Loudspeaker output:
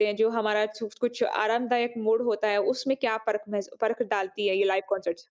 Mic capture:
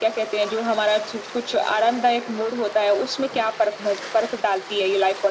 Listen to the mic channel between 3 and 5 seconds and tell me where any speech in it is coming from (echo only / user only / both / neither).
echo only